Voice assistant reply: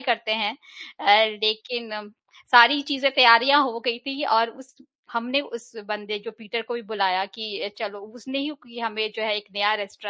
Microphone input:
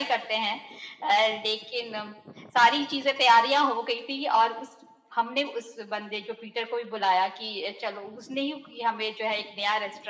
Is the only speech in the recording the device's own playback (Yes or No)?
Yes